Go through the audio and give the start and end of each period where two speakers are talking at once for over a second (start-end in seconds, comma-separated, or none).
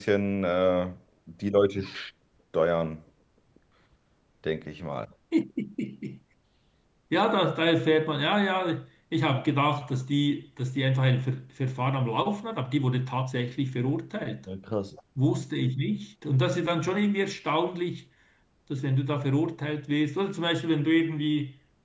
none